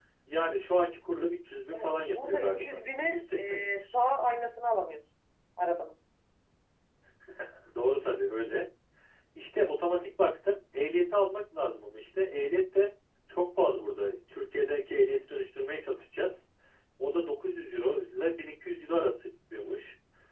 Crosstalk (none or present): present